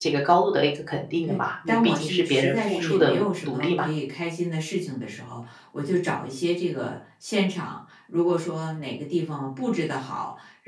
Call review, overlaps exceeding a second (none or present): present